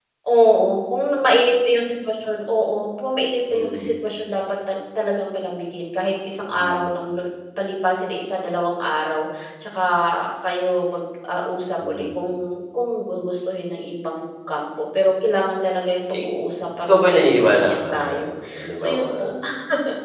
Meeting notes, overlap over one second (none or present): present